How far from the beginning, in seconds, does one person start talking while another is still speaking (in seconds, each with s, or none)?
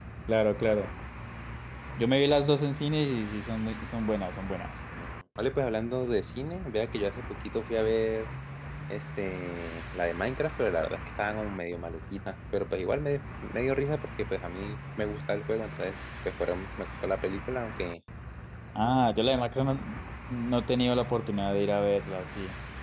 none